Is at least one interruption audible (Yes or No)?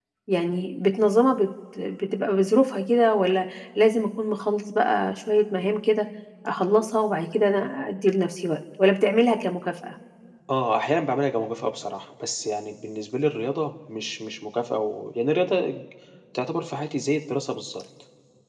No